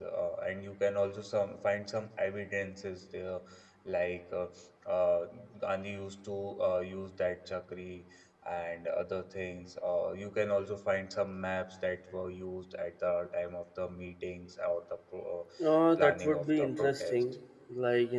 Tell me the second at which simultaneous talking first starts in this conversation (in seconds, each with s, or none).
16.0 s